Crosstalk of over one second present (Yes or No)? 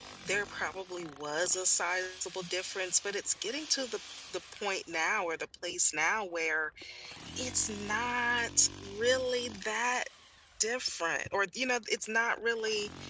No